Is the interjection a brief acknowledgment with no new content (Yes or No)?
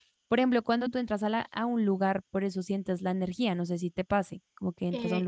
No